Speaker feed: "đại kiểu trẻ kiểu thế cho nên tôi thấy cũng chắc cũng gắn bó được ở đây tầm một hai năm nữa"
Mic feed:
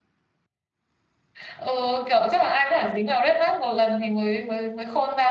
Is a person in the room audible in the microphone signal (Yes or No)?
Yes